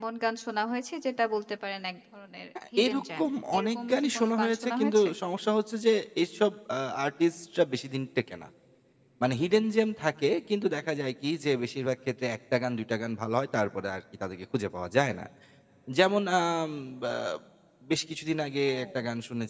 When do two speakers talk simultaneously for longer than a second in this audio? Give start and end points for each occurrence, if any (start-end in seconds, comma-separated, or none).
2.8-5.1